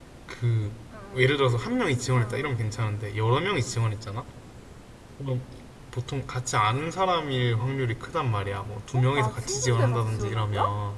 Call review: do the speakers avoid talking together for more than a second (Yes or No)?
No